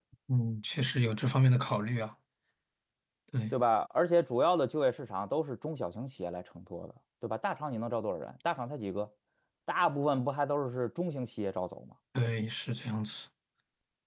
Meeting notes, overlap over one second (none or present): none